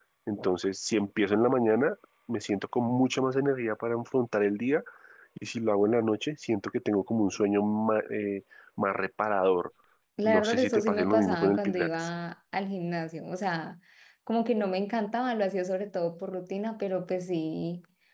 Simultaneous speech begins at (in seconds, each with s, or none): 10.2 s